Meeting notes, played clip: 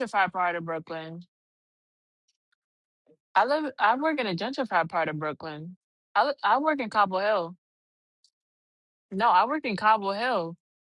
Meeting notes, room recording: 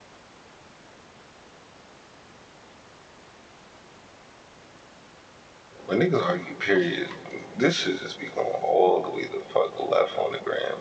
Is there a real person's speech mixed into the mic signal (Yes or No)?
Yes